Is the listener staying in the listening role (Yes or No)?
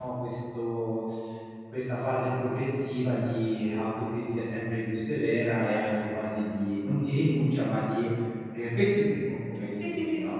No